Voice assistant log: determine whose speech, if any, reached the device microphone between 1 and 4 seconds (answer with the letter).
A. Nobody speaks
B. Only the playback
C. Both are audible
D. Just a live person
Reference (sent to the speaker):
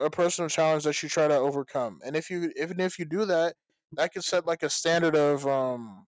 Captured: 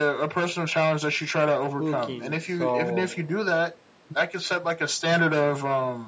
C